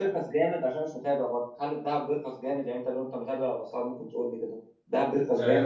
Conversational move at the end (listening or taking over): taking over